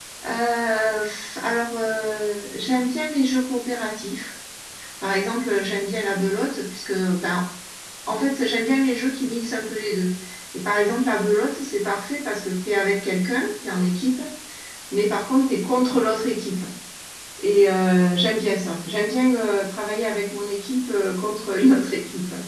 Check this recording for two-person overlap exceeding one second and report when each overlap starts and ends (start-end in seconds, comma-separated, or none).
none